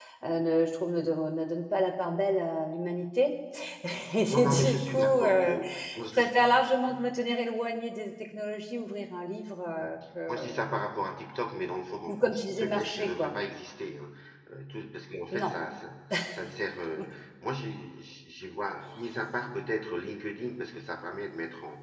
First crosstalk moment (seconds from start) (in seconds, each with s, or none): 4.3 s